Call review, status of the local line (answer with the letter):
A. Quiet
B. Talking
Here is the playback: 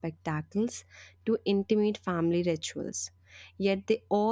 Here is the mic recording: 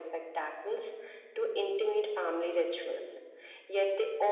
A